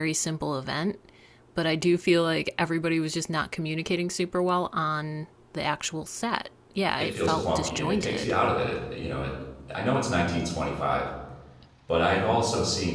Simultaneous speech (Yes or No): Yes